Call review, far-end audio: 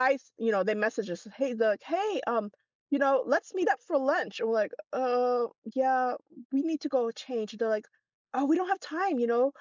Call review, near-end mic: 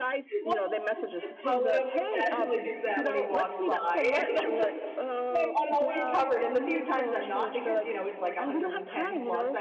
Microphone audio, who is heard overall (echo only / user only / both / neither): both